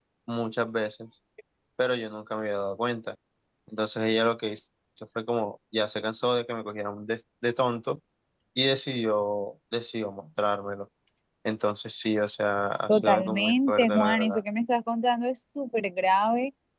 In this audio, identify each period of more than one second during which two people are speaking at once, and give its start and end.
12.9-14.4

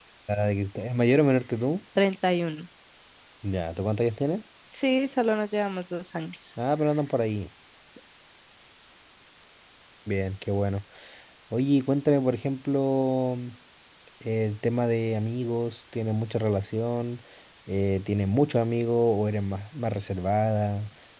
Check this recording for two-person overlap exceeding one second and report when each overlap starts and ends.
none

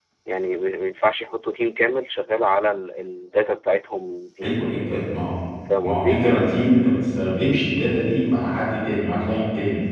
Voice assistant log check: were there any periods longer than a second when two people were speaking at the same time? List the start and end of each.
none

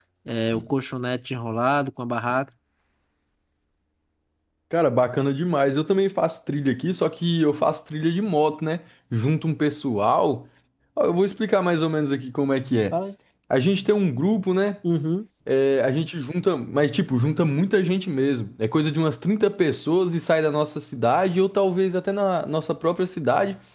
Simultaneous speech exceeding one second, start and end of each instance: none

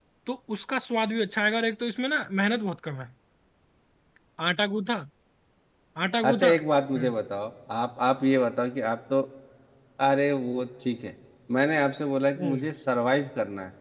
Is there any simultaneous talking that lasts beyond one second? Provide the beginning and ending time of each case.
none

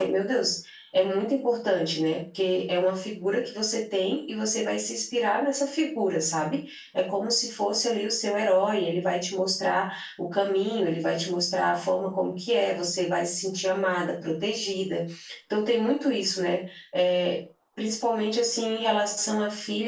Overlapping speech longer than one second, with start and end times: none

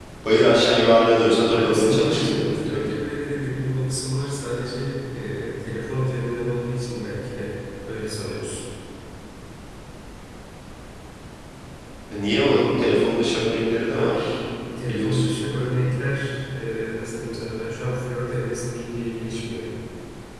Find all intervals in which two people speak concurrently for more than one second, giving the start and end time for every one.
1.6-2.9

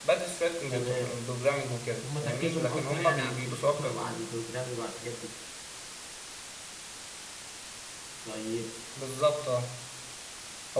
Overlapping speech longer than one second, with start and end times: 2.0-4.2

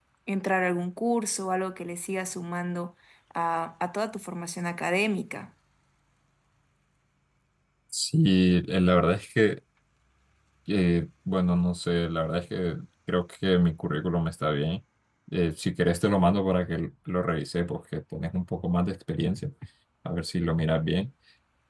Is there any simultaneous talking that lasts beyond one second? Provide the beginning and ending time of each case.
none

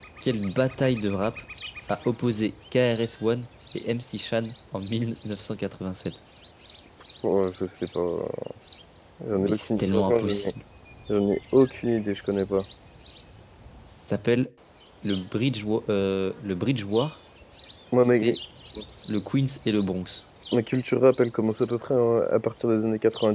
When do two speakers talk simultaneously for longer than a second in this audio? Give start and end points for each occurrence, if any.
9.3-10.5

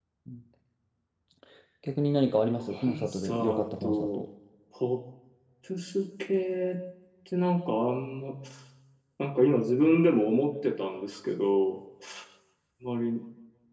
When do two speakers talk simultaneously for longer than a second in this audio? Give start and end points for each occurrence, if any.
2.7-4.2

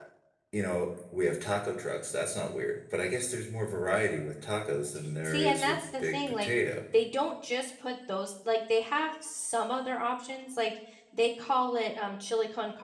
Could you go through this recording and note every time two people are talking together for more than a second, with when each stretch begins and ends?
5.2-6.5

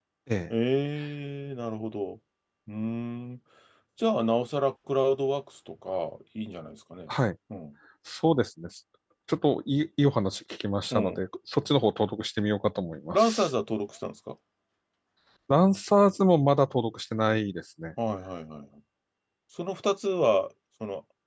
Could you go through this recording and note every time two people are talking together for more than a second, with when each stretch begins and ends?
none

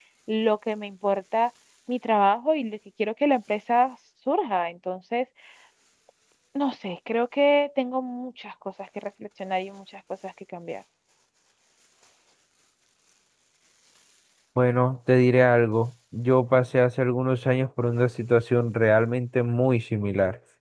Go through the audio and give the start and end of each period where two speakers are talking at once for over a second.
none

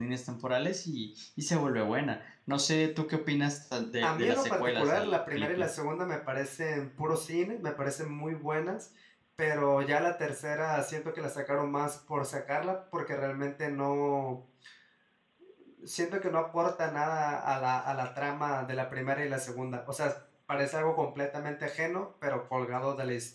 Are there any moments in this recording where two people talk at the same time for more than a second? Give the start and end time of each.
4.0-5.7

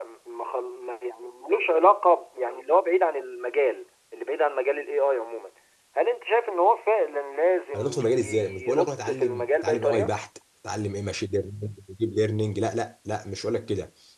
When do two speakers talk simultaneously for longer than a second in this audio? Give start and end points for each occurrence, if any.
7.8-10.1

